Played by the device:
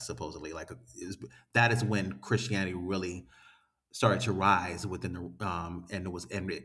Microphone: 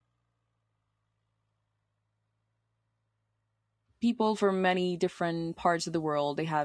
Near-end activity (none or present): present